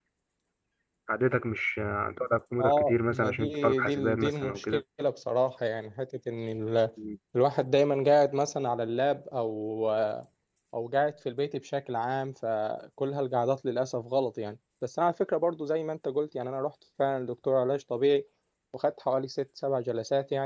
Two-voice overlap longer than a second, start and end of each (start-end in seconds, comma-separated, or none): 2.6-4.8